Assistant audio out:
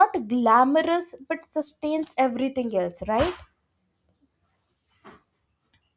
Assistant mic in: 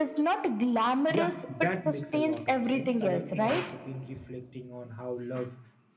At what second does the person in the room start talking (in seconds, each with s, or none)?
1.1 s